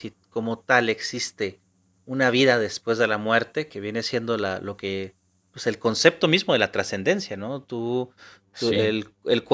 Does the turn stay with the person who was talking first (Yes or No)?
Yes